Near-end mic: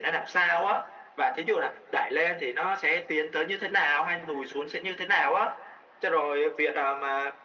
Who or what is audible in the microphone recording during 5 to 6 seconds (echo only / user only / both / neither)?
echo only